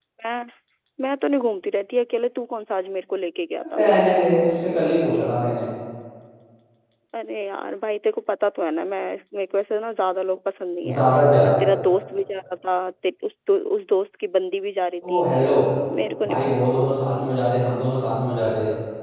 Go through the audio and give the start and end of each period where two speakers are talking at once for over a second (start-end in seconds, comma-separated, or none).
none